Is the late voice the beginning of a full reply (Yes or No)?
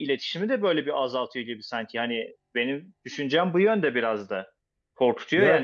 Yes